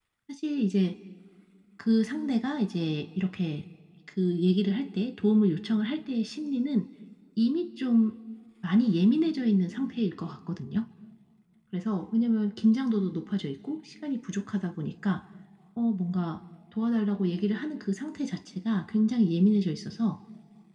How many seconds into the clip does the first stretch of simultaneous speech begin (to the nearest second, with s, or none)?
none